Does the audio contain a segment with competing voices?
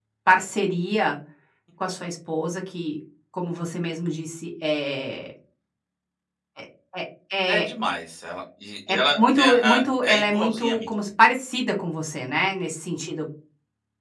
Yes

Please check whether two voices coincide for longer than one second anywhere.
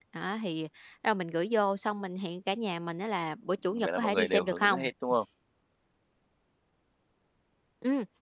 Yes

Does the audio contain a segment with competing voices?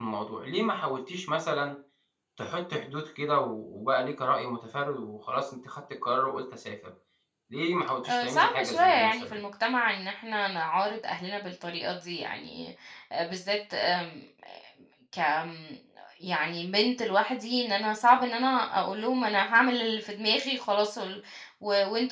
Yes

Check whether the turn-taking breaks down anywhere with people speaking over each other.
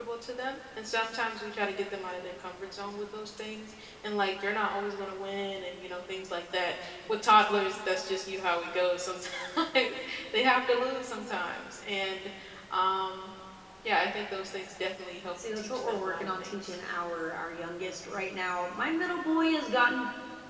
Yes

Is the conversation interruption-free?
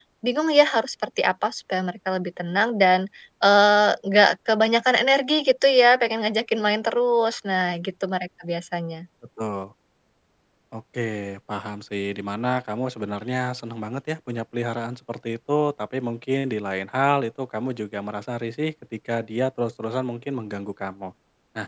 Yes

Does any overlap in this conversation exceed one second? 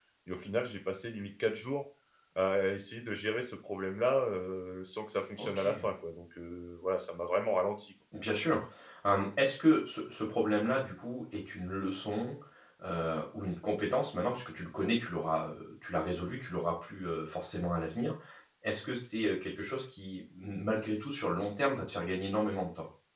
No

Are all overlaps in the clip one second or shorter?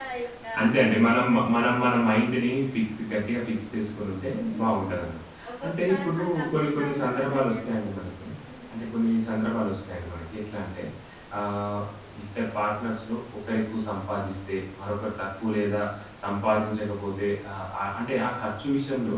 No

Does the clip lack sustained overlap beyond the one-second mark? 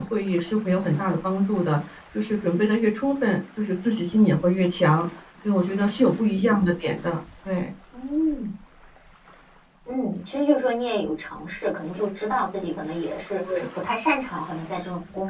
Yes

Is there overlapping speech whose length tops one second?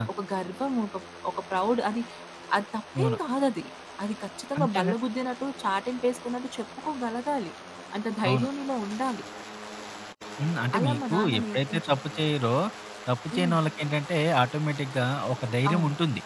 Yes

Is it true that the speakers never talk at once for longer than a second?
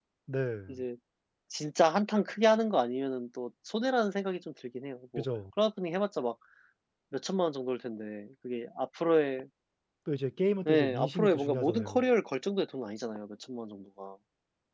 No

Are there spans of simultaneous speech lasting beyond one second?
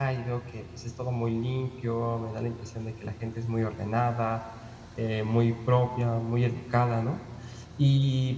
No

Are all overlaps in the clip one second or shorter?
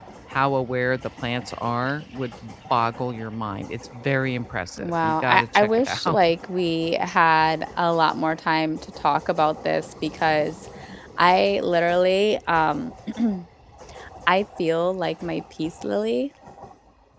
No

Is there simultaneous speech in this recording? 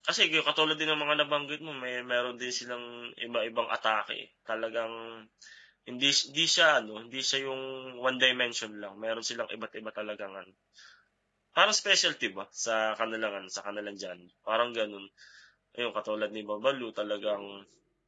No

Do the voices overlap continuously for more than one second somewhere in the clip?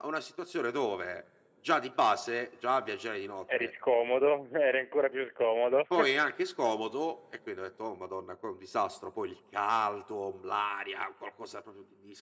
No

